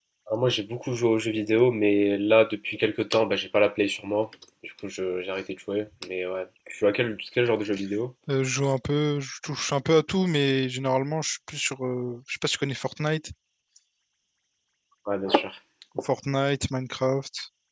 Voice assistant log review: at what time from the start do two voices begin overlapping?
none

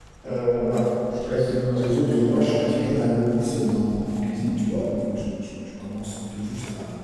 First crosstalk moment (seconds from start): 1.7 s

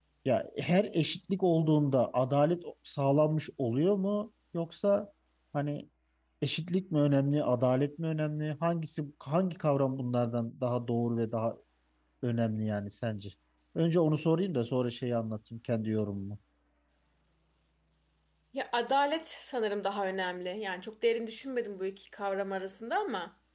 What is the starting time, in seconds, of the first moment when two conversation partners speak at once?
none

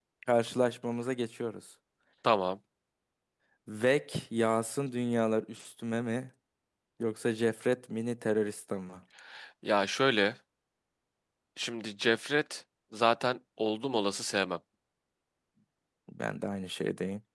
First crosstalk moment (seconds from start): none

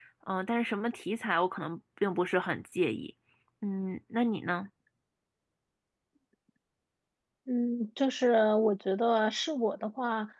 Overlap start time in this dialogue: none

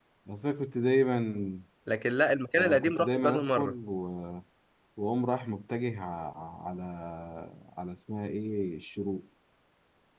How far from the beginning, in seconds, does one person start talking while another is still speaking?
2.5 s

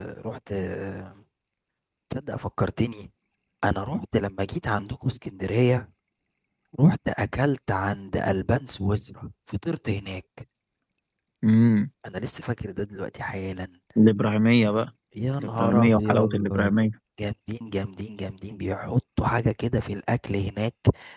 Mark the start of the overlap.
15.4 s

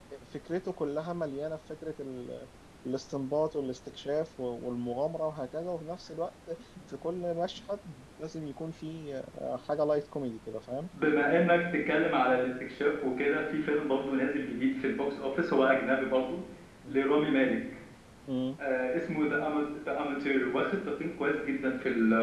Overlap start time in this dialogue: none

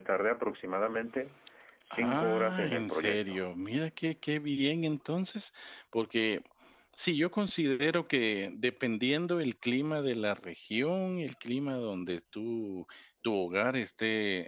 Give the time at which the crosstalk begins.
1.9 s

